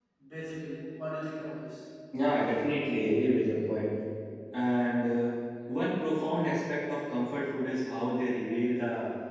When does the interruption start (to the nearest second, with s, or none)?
none